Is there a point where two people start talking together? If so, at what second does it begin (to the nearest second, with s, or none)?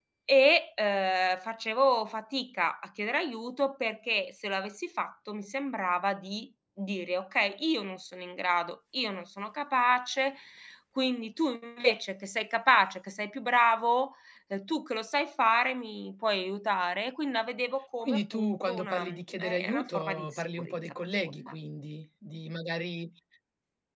18 s